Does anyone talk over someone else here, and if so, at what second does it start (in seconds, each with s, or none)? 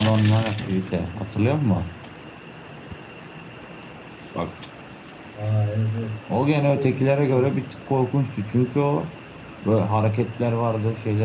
6.3 s